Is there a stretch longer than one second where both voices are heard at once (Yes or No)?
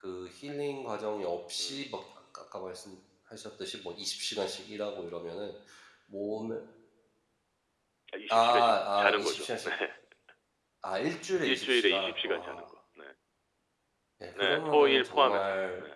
Yes